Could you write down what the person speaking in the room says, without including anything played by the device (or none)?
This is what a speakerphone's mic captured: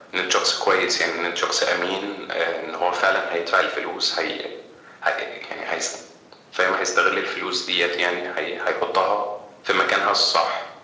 none